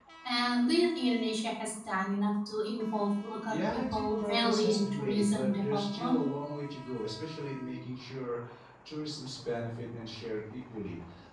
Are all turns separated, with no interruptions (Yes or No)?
No